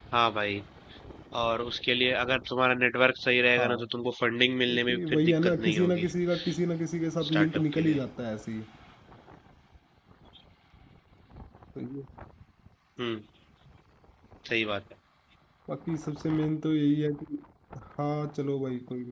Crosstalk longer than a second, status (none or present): present